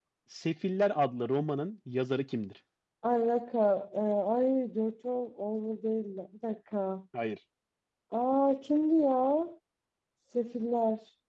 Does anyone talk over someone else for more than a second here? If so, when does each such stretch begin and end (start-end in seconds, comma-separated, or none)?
none